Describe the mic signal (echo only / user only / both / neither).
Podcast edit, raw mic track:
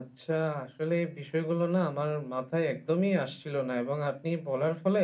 echo only